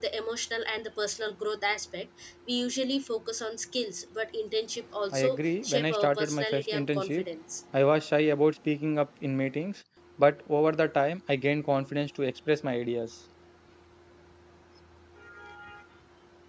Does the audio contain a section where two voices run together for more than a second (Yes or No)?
Yes